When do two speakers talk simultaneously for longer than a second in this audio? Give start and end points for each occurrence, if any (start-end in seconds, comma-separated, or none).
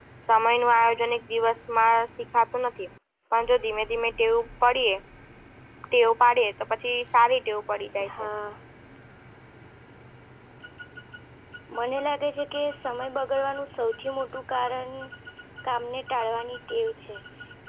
none